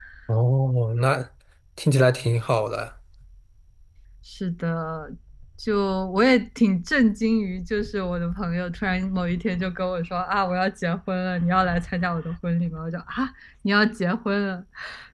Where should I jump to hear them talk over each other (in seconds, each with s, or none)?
none